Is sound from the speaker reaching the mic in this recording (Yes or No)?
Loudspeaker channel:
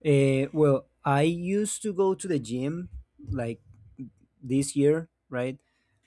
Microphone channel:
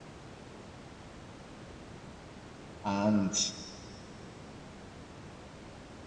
No